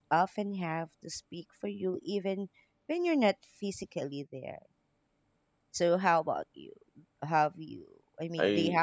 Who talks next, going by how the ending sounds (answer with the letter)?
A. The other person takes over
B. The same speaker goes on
A